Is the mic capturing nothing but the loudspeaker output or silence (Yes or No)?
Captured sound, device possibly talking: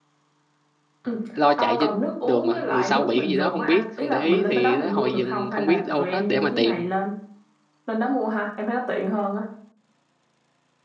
No